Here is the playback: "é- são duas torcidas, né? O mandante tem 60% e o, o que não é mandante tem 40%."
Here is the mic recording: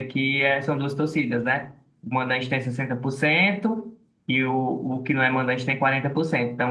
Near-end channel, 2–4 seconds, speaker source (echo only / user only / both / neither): echo only